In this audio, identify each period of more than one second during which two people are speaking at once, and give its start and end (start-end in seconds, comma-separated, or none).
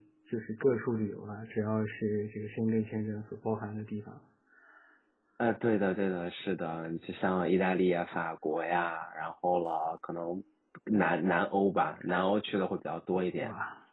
none